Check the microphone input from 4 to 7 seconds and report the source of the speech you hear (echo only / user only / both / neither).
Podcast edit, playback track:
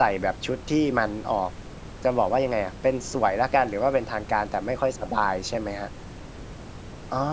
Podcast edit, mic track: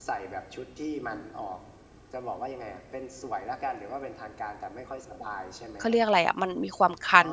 both